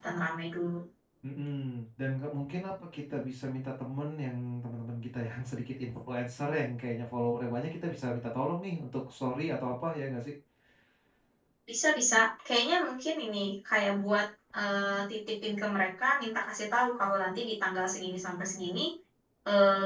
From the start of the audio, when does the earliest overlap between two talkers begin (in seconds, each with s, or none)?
none